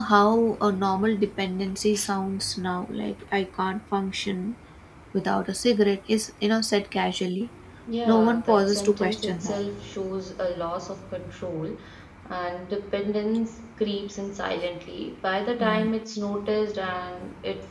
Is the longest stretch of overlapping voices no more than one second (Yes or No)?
No